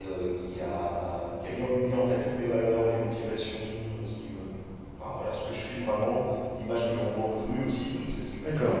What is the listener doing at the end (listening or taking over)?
listening